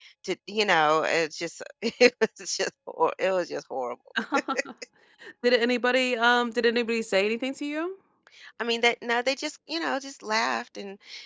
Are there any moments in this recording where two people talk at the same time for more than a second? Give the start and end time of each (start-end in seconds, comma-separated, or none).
none